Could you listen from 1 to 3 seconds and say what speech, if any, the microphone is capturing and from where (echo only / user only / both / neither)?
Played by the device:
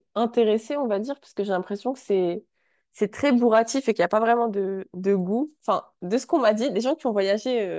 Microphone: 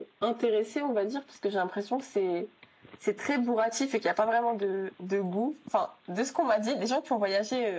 echo only